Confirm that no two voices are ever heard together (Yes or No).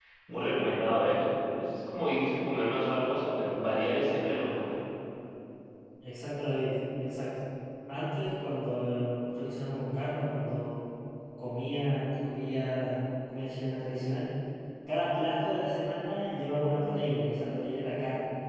Yes